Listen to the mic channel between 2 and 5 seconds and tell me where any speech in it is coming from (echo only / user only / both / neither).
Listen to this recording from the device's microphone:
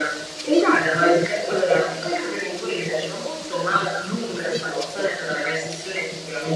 echo only